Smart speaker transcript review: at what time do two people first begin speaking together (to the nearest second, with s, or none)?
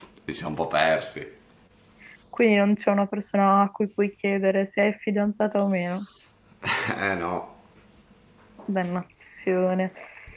none